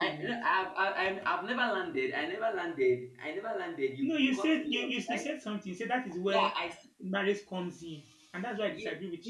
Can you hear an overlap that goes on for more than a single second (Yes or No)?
Yes